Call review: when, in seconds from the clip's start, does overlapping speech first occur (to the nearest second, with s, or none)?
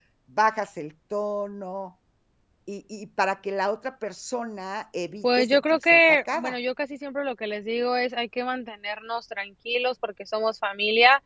5 s